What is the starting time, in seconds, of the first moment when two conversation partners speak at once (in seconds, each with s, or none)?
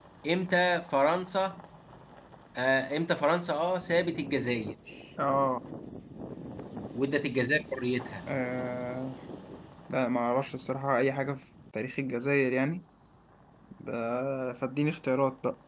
none